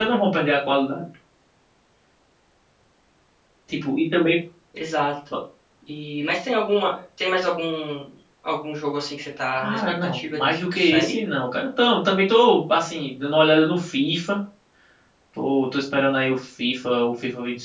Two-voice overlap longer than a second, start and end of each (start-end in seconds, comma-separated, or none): 9.6-11.2